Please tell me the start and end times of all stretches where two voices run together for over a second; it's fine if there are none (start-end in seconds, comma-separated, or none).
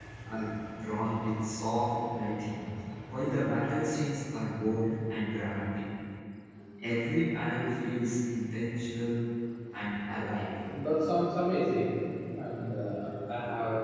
none